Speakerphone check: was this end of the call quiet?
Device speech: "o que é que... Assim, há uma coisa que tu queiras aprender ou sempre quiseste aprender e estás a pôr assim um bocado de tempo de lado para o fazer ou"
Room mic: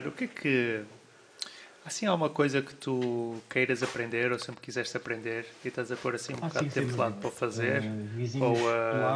No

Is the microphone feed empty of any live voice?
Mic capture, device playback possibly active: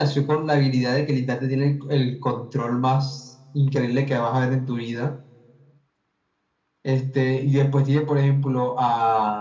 Yes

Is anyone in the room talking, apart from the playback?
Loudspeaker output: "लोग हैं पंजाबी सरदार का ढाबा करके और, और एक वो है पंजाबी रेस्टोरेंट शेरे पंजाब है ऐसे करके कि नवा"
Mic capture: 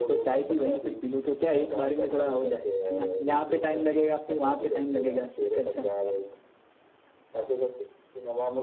Yes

